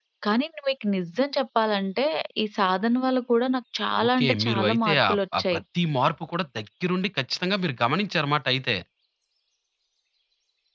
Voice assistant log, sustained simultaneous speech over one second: present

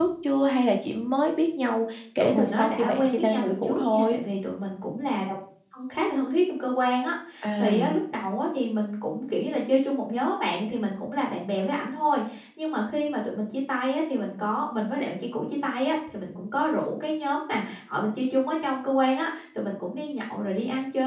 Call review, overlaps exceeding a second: present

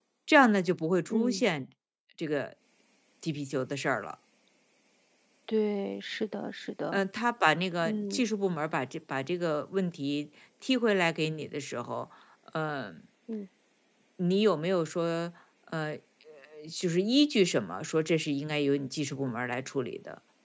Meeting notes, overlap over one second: none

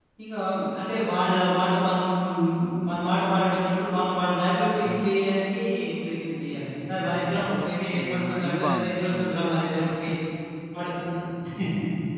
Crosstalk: present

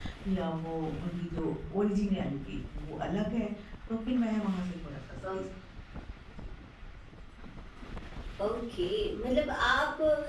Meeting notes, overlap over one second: none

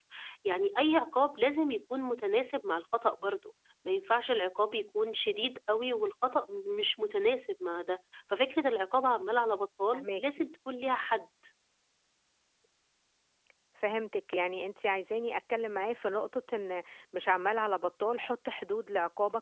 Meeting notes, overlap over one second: none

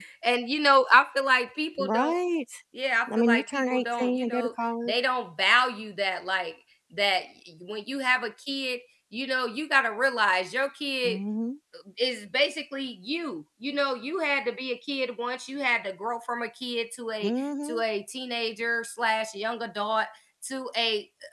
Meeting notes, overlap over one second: present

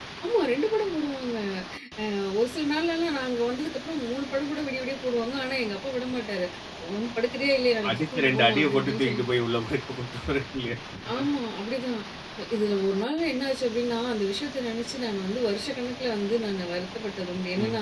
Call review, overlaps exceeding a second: present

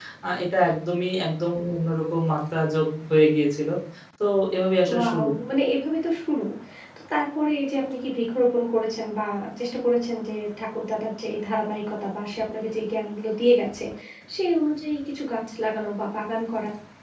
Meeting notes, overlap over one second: none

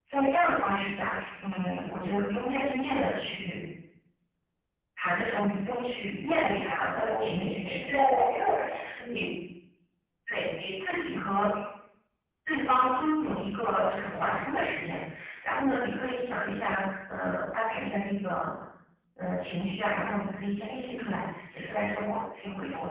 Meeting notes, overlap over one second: present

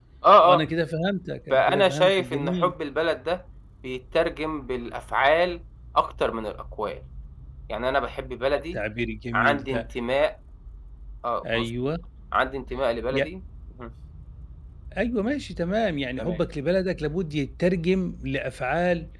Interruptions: present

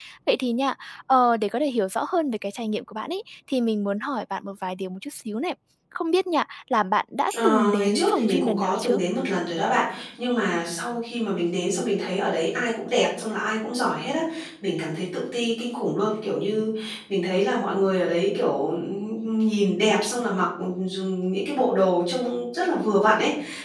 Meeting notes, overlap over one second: present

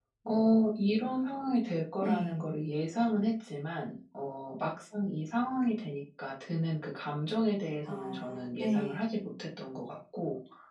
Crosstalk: present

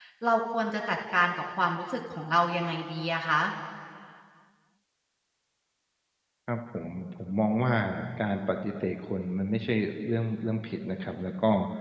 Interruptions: none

